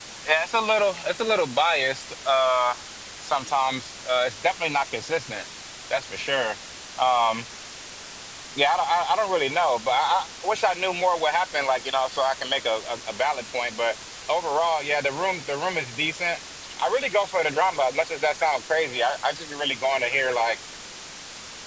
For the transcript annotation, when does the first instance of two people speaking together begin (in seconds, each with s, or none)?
none